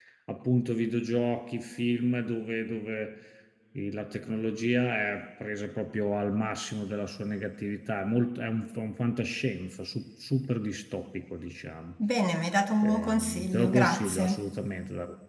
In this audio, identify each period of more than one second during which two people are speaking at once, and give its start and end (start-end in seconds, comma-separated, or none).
12.8-14.4